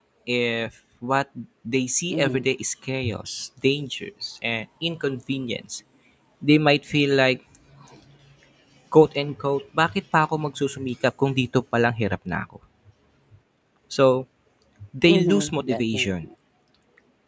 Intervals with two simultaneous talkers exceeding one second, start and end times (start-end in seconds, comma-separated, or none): 15.1-16.3